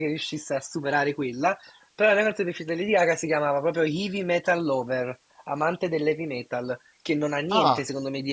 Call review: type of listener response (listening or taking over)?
listening